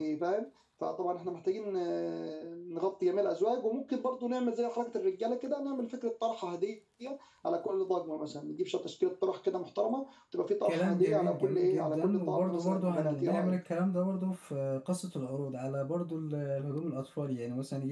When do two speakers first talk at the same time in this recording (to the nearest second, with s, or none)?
11 s